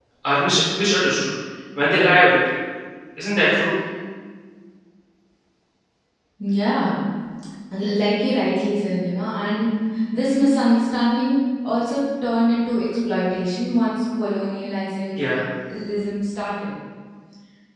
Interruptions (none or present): none